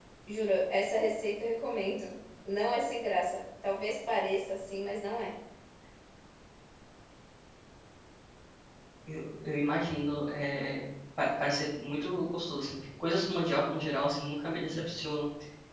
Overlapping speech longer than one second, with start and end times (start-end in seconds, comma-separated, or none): none